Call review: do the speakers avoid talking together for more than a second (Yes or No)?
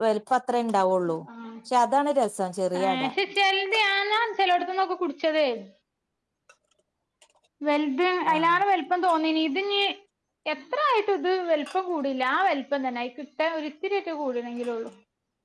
Yes